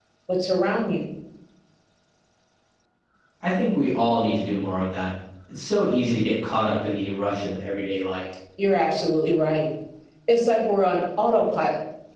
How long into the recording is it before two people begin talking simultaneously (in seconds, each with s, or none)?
none